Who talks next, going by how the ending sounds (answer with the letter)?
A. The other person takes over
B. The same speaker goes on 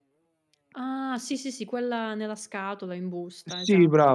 A